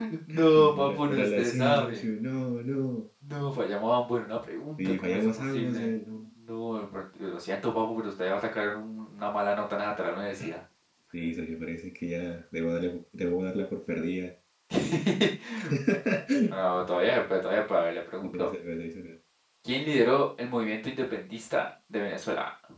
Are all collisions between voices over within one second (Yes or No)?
No